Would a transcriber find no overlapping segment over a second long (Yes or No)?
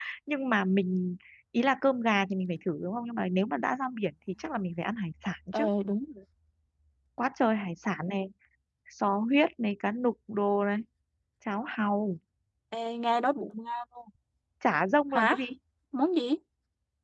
Yes